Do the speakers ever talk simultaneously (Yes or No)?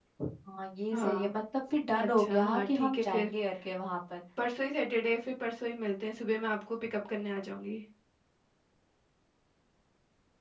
Yes